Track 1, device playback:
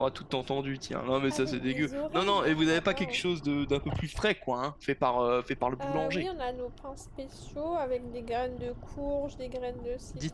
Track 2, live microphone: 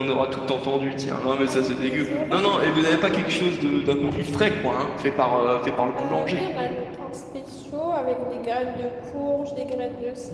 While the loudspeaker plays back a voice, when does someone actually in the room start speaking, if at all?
none

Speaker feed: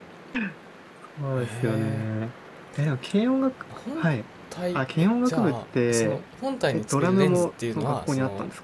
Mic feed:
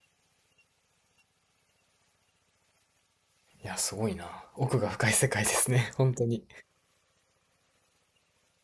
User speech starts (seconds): 4 s

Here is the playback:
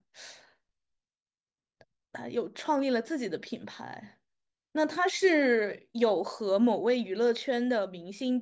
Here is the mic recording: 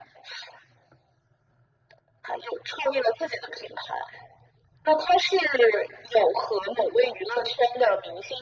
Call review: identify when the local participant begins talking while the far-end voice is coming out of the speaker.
none

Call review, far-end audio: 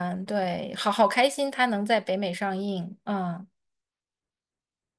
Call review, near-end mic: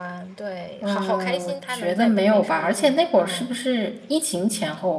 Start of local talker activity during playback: 1 s

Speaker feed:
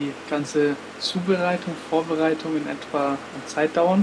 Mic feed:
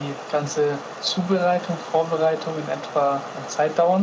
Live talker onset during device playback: none

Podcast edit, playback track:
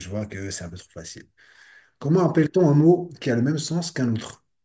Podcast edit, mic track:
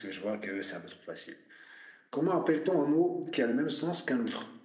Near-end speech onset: none

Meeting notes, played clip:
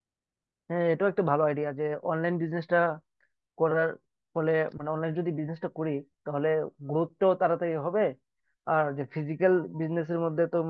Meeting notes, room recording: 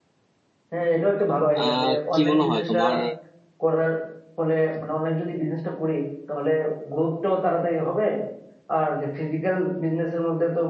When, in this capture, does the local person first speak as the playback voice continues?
2 s

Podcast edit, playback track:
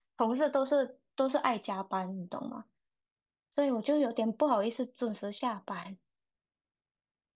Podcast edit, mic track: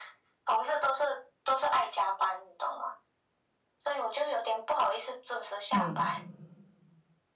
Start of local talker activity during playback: 6 s

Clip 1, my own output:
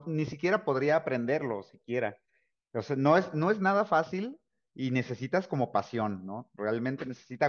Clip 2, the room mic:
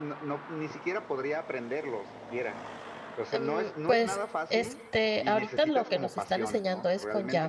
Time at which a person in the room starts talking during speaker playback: 3 s

